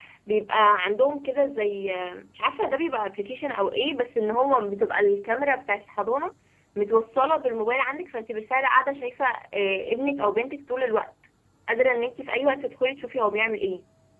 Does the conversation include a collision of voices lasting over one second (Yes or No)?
No